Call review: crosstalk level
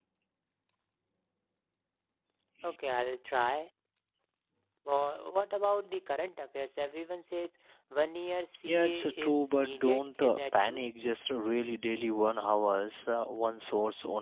present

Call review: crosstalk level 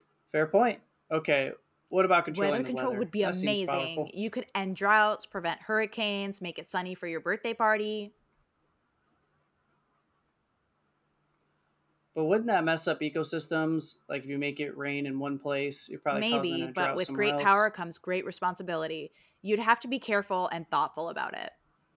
present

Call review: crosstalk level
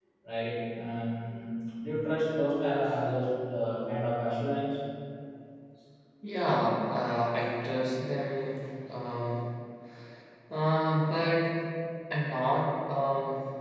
none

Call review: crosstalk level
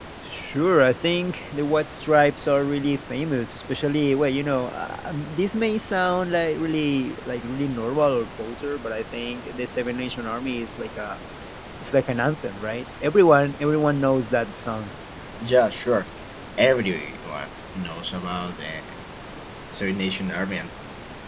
none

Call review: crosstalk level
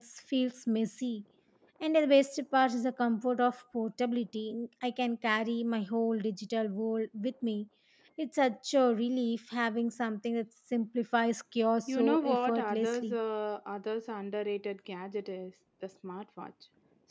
present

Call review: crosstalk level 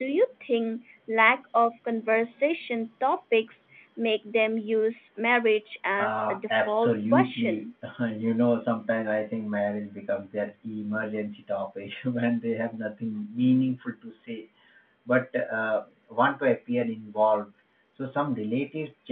present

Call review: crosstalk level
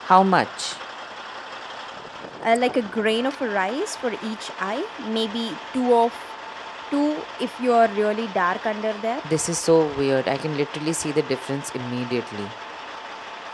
none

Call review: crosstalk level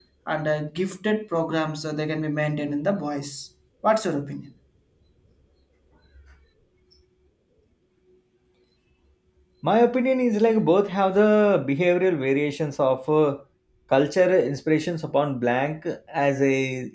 none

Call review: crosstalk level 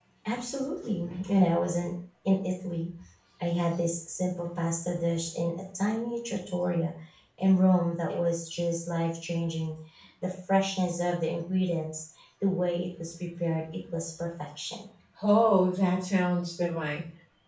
none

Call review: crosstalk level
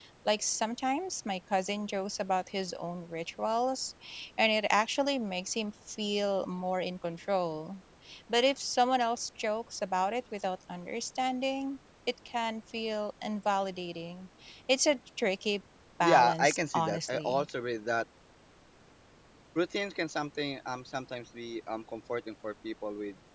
present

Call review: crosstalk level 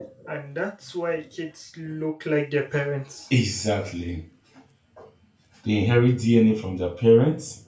none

